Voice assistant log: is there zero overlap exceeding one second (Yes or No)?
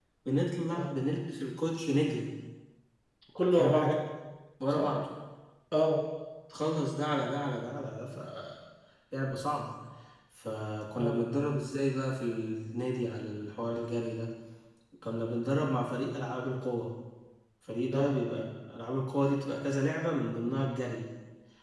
Yes